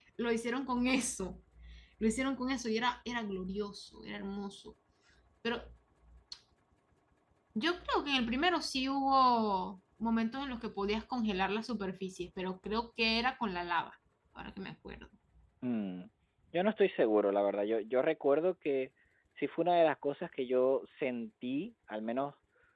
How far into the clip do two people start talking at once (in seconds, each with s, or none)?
none